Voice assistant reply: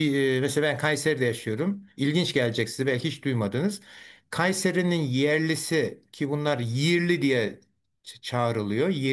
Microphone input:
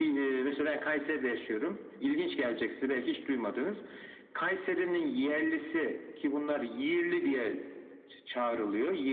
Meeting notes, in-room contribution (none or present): none